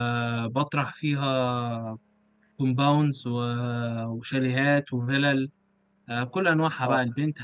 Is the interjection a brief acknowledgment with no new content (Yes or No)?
Yes